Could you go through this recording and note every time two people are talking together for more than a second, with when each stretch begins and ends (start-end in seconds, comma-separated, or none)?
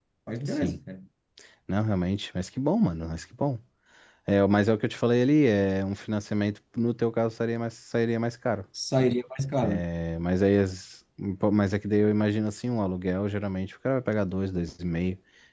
none